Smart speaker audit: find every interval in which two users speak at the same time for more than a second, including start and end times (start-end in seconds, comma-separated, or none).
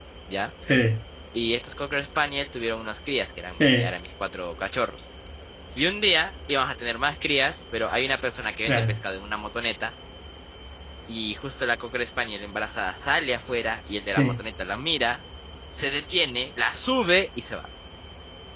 none